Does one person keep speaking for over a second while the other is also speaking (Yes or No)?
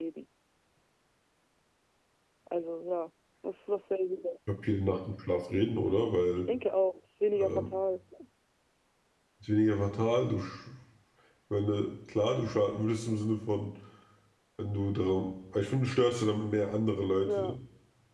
No